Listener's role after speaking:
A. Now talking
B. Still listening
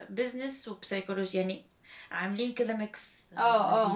A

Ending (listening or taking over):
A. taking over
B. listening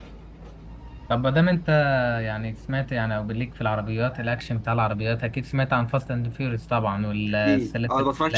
A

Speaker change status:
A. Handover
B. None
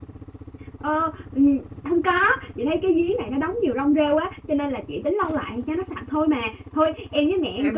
A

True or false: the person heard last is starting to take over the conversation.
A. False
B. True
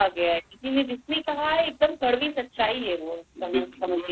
B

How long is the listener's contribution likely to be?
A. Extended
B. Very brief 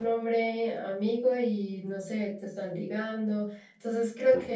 B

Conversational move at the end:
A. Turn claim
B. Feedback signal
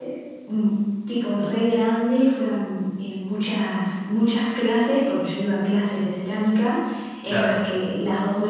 B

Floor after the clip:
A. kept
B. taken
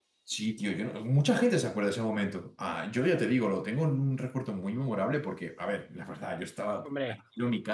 A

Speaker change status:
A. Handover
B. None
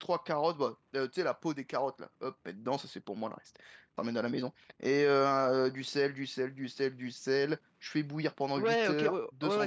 A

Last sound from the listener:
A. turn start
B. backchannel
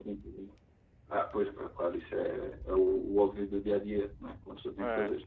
B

